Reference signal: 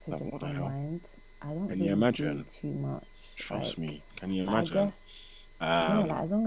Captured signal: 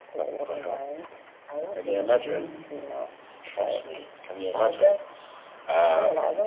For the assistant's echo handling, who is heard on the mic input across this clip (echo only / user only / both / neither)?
both